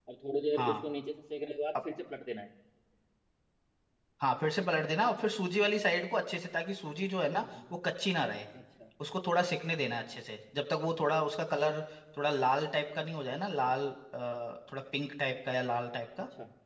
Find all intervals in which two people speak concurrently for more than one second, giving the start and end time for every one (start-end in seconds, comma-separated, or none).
none